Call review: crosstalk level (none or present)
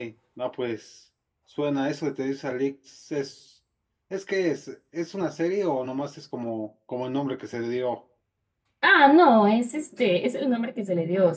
none